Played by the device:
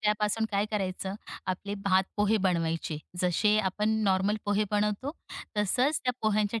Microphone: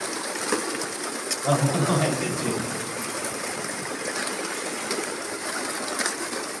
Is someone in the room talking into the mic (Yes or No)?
Yes